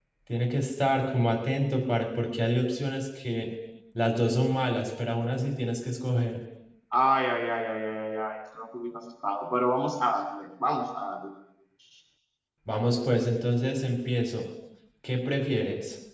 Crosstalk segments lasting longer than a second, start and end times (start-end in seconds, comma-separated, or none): none